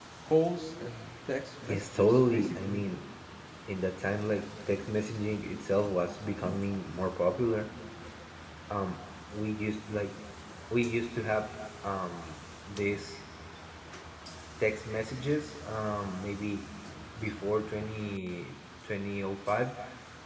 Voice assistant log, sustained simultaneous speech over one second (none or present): present